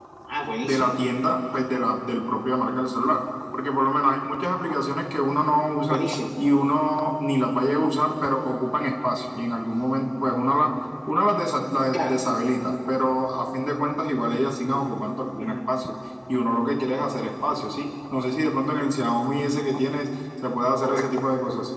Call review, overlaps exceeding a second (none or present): none